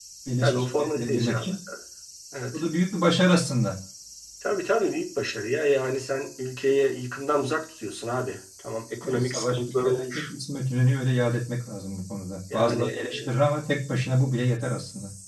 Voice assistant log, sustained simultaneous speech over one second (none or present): present